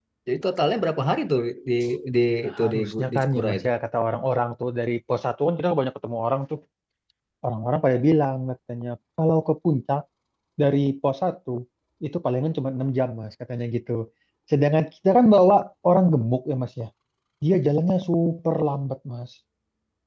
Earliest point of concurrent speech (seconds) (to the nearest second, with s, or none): 2 s